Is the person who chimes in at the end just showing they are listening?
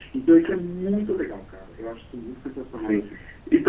No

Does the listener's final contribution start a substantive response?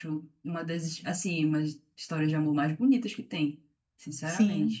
Yes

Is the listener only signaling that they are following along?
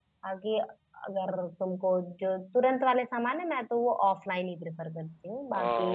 No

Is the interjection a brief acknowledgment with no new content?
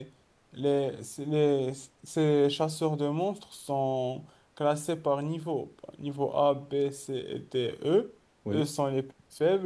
Yes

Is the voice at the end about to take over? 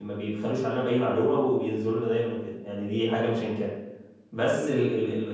No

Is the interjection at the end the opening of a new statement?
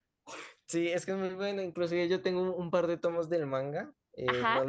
No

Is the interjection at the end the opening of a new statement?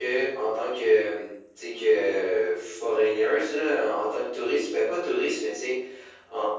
No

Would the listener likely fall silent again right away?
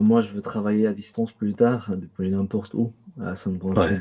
Yes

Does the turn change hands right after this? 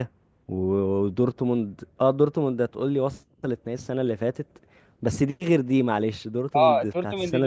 Yes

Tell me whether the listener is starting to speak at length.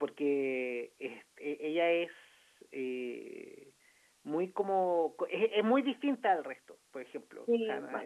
No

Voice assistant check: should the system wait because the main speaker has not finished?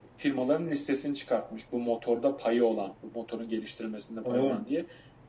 Yes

